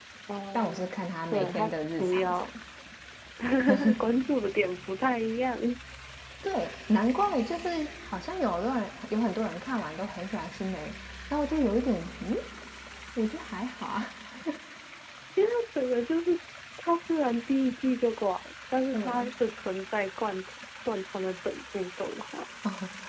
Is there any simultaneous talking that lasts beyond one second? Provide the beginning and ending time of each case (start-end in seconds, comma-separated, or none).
0.5-2.5